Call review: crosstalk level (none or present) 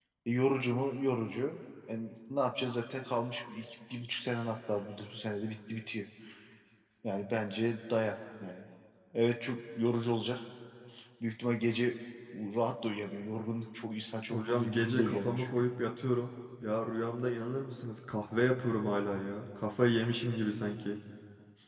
present